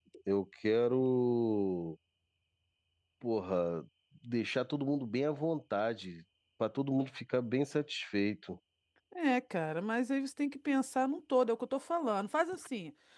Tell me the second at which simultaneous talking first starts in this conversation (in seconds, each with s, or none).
none